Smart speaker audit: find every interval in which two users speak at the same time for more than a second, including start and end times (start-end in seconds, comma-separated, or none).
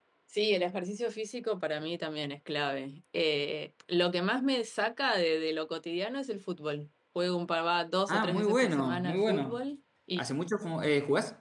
8.1-9.6